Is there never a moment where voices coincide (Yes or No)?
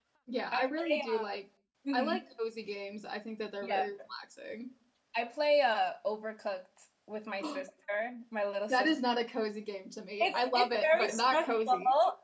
No